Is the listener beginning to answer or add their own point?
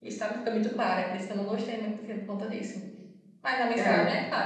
No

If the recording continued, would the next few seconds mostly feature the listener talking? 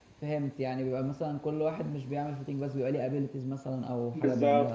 Yes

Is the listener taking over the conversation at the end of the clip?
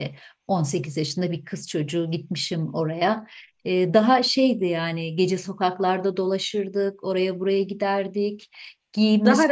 No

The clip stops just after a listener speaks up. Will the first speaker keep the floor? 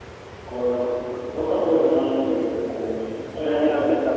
No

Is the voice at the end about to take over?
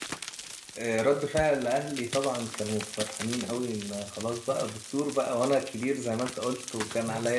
No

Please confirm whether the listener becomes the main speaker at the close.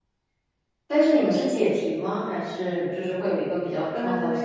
Yes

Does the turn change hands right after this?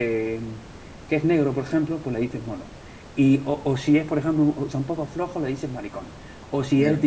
No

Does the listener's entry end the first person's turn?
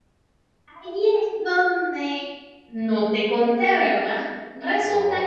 No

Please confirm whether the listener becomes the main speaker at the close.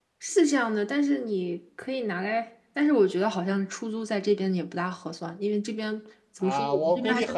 Yes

